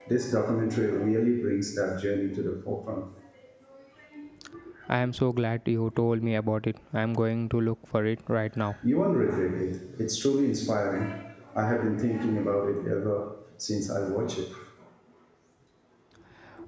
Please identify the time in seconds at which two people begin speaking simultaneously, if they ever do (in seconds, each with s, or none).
none